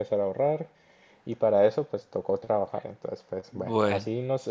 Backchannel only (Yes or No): Yes